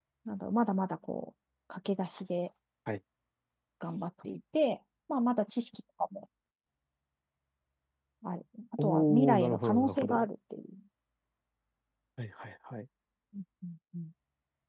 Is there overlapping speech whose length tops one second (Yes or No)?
Yes